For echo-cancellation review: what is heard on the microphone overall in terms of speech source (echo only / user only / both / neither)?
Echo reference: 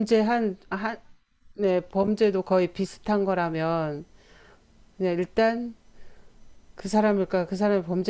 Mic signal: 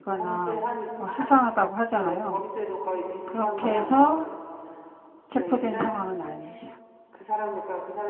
both